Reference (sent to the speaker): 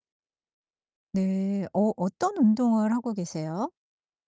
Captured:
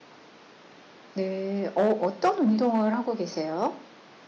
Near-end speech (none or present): present